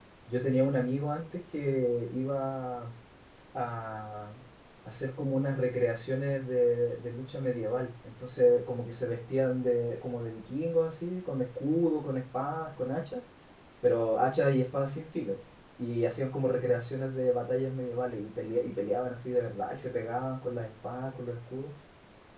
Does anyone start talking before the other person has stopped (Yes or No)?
No